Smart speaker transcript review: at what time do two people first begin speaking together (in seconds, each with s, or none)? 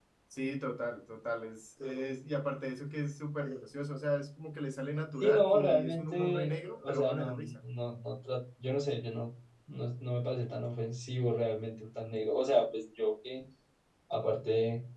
5.2 s